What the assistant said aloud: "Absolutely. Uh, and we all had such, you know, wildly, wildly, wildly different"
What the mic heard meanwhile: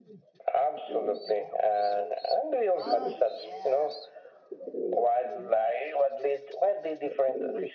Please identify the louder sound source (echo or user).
echo